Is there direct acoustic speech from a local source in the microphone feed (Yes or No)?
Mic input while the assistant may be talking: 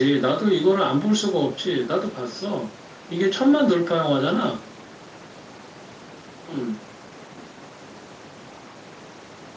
No